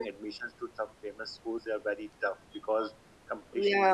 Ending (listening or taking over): listening